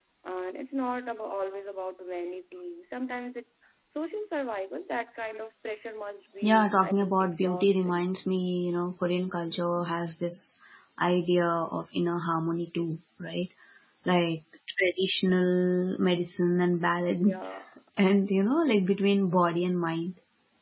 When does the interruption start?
6.4 s

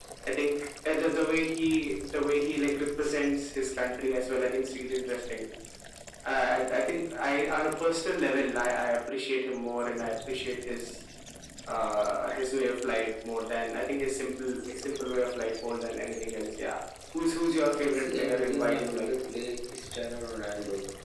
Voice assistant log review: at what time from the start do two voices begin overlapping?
17.8 s

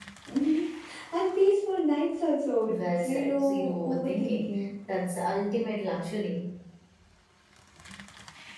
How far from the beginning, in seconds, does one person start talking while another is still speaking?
2.7 s

